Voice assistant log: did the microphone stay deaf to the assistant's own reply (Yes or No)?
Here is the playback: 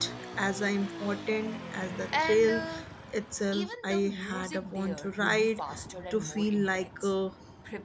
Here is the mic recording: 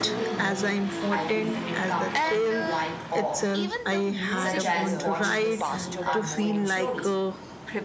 No